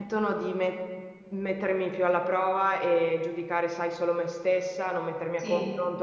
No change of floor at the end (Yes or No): Yes